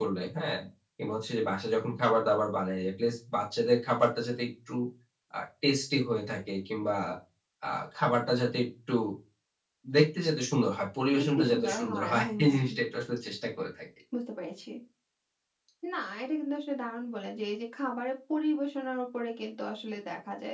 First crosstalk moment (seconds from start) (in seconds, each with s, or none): 11.1 s